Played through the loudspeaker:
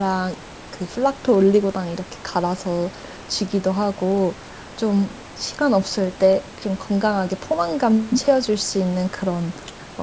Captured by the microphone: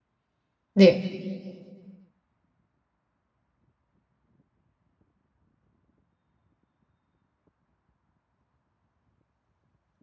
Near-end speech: present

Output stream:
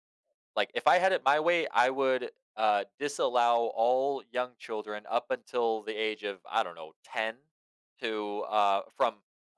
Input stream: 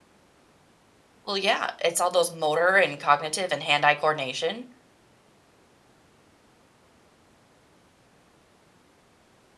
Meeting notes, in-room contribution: present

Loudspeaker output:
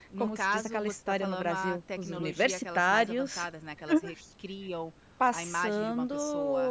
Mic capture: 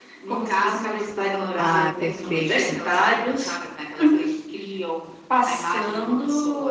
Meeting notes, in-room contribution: present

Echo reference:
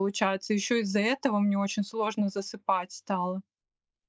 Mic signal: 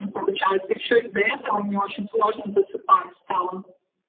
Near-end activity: none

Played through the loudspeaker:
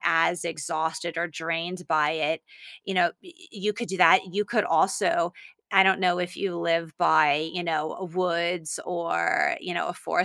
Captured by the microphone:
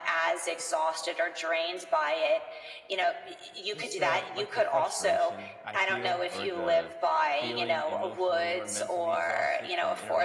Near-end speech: present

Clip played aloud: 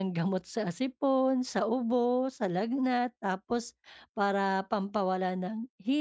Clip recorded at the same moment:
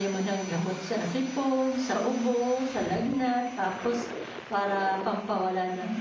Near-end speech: none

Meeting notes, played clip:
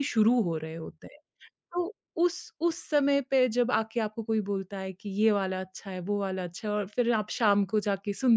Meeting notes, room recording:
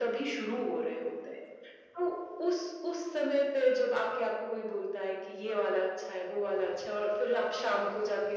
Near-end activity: none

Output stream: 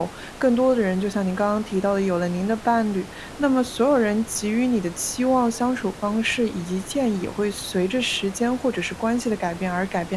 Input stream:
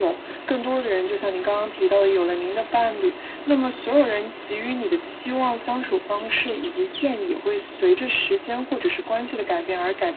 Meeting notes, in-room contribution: none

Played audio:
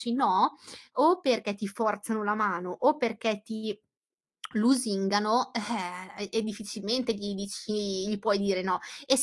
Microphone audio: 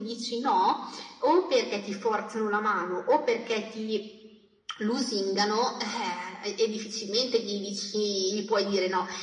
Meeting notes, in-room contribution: none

